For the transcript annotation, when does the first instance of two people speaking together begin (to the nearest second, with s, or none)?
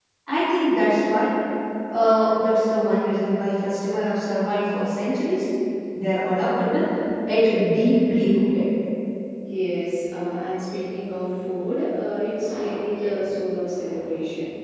none